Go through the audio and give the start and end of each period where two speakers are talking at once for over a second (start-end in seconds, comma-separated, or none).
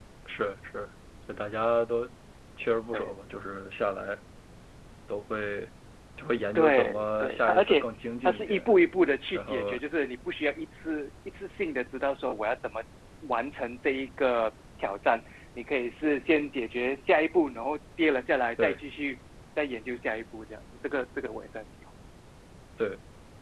6.5-7.8